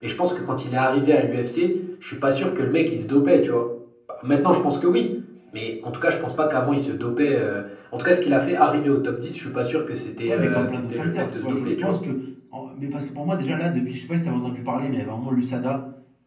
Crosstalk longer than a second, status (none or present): present